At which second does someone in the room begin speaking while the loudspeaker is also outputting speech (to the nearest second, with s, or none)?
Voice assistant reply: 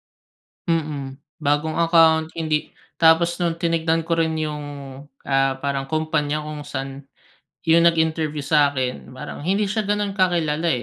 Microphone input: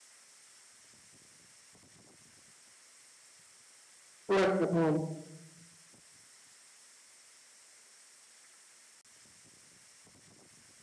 4 s